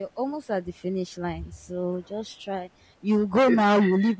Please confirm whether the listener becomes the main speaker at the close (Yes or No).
No